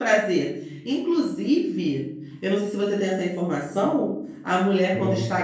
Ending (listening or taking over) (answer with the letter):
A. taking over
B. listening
B